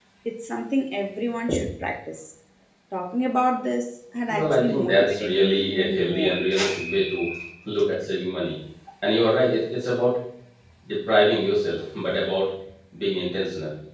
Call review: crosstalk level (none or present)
present